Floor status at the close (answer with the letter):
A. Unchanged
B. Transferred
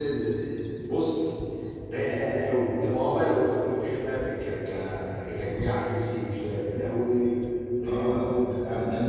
B